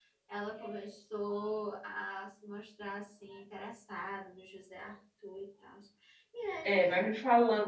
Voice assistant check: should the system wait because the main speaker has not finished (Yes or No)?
No